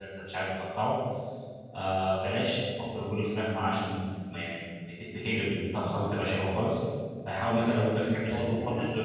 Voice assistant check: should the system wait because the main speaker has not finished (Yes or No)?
No